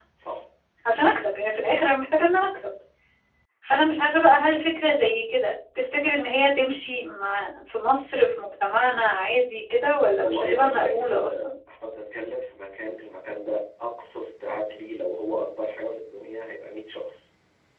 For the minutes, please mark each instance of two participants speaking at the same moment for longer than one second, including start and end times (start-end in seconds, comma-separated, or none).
10.2-11.5